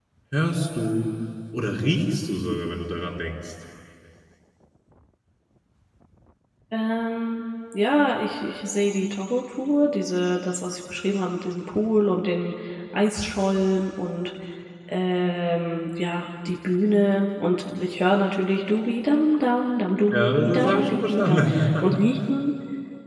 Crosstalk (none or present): present